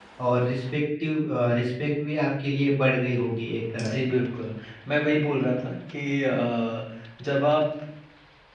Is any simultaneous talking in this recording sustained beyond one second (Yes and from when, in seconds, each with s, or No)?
No